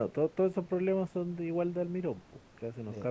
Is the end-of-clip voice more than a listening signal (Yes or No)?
Yes